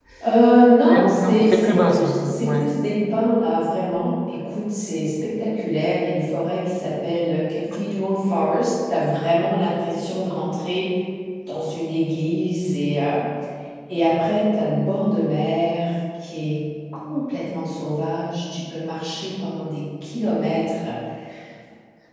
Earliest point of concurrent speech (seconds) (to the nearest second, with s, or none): 1 s